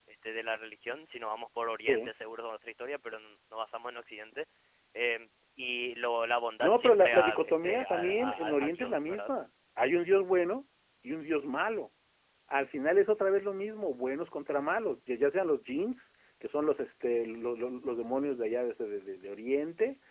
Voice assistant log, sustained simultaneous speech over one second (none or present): present